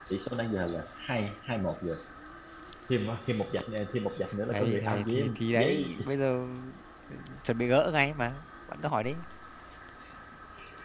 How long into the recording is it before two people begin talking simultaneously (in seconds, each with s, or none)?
4.5 s